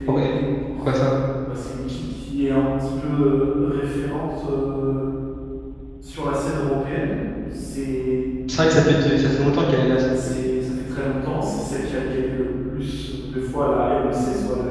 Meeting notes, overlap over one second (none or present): none